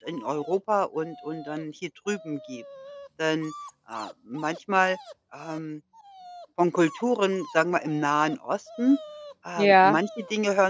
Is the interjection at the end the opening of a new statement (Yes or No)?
No